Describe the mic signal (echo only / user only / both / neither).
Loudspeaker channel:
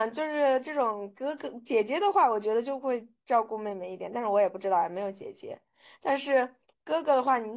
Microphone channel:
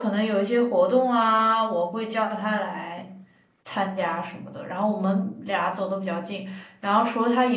user only